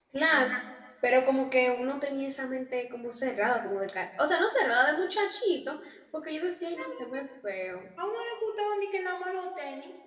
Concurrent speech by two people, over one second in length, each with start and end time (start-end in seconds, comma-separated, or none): none